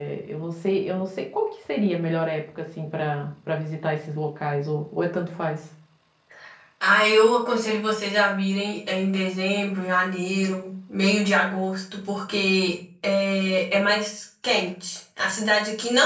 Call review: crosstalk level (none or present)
none